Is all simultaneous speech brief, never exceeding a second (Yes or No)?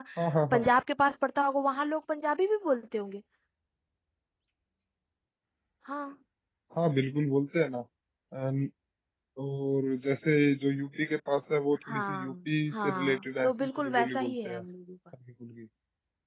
No